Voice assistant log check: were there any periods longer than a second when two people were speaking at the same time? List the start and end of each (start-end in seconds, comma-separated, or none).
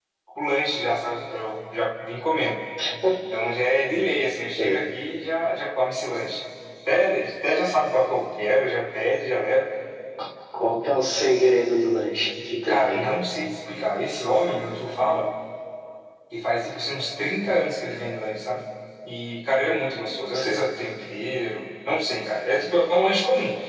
none